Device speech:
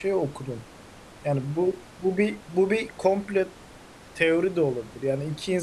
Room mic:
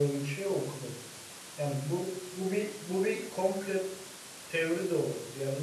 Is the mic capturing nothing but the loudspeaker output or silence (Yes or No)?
Yes